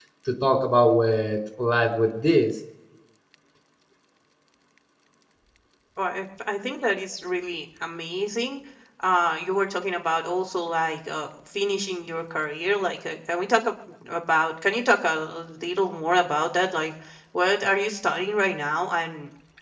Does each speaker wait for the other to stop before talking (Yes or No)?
Yes